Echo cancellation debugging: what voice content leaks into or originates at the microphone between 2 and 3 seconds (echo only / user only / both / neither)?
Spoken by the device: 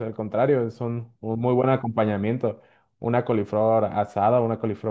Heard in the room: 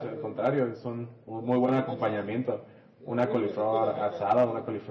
both